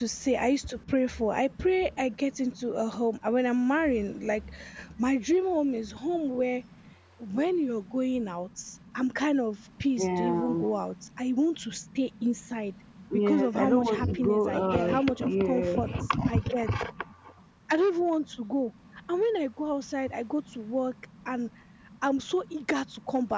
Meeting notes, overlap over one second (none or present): present